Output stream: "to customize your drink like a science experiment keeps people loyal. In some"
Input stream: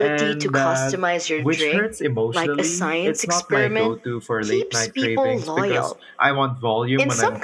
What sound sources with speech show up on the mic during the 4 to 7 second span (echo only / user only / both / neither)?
both